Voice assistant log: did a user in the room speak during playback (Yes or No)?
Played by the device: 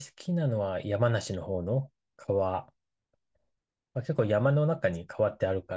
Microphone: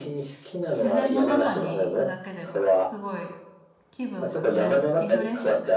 Yes